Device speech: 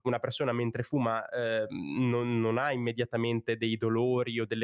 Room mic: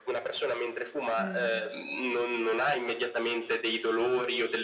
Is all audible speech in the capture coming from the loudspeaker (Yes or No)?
No